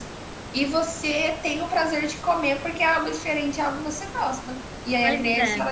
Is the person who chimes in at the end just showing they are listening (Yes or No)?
Yes